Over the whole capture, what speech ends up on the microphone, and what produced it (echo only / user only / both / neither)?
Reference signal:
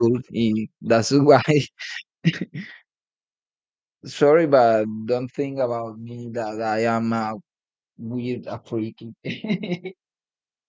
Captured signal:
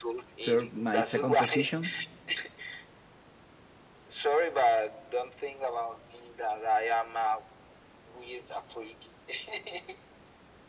both